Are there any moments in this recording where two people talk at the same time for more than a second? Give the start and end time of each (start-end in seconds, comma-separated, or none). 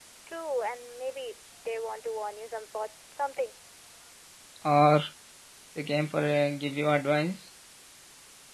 none